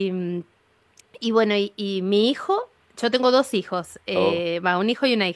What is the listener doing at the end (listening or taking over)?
listening